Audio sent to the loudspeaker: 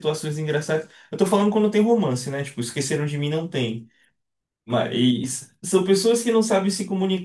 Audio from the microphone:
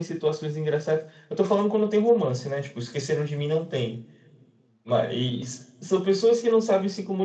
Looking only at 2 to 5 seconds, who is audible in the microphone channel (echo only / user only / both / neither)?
echo only